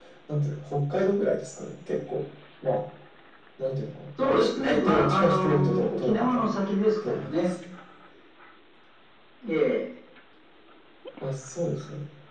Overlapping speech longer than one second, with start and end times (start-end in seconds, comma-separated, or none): 4.2-6.5